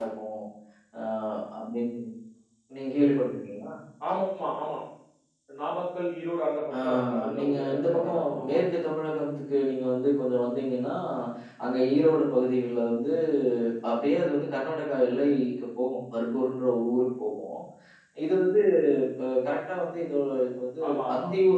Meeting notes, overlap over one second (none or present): present